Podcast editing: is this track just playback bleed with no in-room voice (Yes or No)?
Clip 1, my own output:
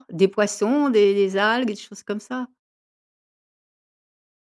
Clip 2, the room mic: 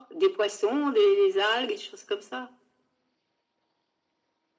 Yes